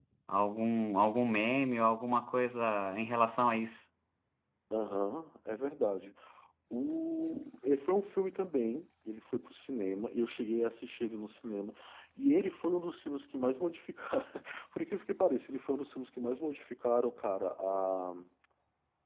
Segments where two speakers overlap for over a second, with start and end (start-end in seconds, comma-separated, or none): none